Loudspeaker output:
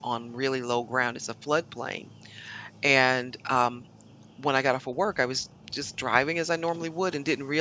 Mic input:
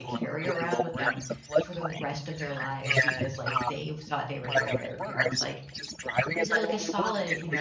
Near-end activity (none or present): present